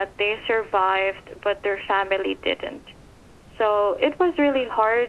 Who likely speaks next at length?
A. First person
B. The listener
A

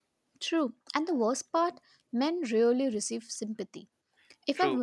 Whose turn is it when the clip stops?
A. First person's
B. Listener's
A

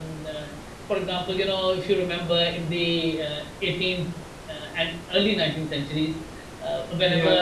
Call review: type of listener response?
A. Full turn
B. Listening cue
B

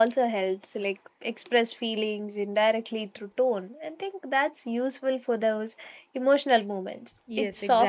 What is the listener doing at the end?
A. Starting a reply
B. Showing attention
A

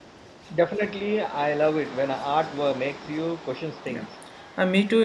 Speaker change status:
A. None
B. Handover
B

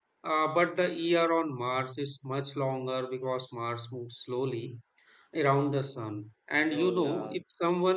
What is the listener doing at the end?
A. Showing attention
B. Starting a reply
A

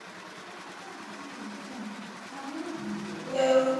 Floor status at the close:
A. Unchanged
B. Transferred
A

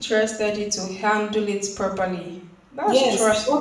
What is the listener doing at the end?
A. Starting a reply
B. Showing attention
A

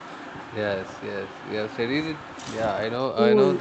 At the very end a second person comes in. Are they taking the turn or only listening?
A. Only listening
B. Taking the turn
A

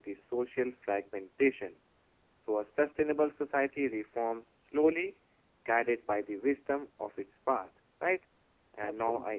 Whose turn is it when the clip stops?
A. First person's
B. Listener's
A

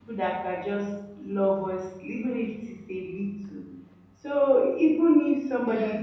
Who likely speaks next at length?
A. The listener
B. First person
A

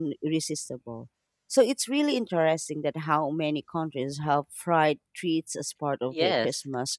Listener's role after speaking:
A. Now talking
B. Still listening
A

